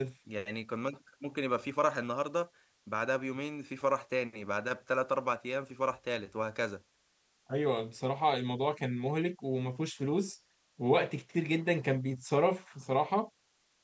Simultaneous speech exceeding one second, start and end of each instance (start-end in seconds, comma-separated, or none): none